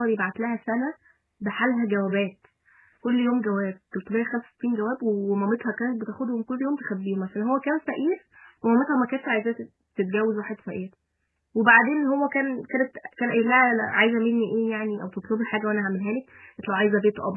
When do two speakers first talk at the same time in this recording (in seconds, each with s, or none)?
none